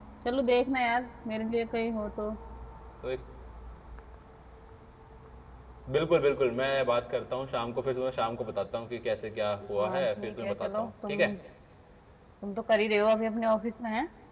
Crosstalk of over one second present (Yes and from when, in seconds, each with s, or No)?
Yes, from 9.8 s